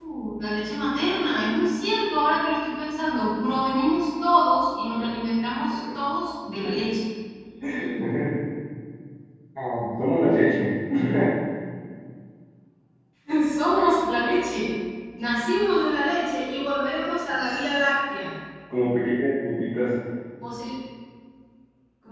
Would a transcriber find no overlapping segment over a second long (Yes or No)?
Yes